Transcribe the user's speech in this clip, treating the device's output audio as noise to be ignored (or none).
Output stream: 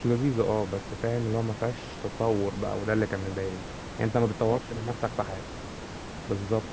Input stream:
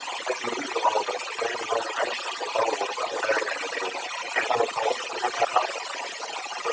none